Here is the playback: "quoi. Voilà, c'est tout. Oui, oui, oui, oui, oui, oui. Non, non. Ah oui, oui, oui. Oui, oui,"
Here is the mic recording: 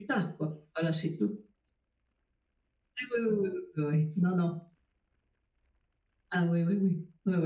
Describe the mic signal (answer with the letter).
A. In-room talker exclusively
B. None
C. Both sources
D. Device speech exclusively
D